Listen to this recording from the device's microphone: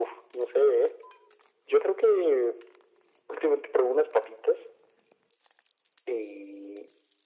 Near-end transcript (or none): none